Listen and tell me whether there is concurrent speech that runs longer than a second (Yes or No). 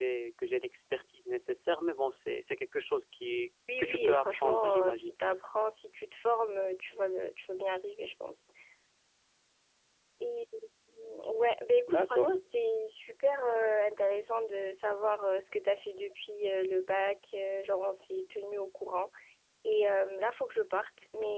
Yes